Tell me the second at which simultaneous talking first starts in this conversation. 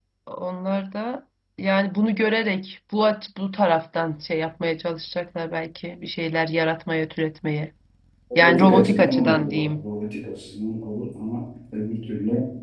8 s

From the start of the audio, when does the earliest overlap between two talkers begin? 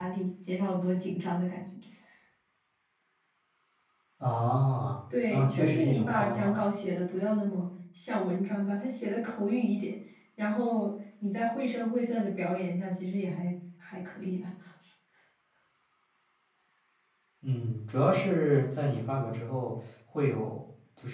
5 s

